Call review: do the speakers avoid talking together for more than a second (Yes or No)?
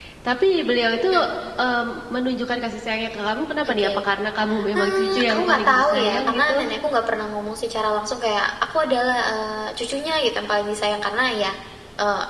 No